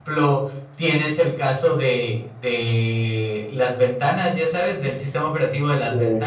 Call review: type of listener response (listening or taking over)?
listening